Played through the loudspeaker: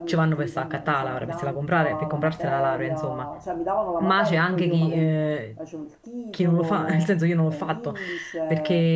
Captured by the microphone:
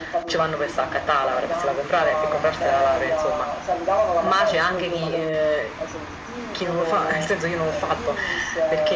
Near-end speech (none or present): none